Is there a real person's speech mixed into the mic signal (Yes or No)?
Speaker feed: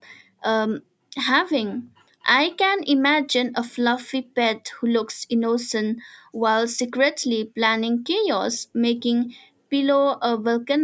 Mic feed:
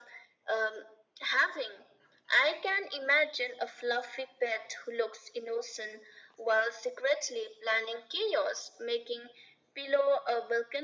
No